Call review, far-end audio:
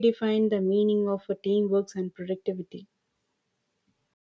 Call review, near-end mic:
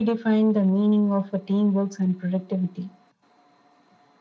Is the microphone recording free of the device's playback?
No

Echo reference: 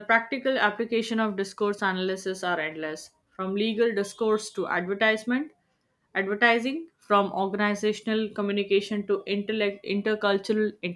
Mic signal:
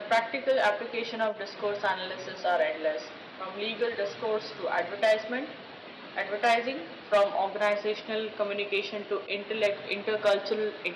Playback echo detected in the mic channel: Yes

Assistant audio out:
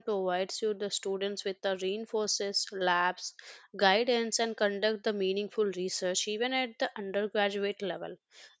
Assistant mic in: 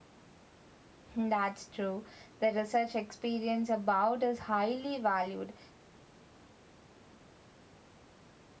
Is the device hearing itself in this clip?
No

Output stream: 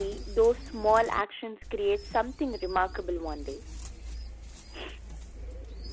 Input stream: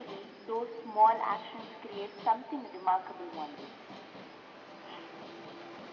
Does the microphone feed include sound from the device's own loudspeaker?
Yes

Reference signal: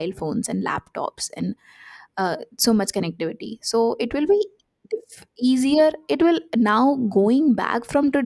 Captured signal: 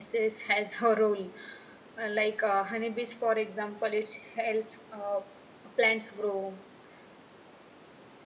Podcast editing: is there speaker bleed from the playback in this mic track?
No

